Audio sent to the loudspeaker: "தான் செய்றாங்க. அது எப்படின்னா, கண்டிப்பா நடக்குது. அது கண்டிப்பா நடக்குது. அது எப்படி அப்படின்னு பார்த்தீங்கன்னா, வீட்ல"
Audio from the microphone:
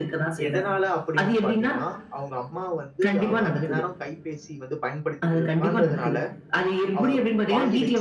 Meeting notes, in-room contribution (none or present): present